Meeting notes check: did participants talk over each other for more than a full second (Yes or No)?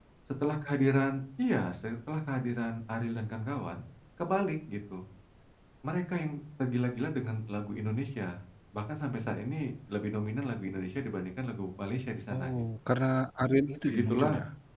No